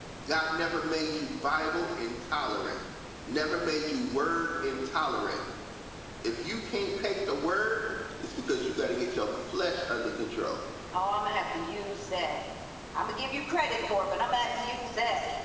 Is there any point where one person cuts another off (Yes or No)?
No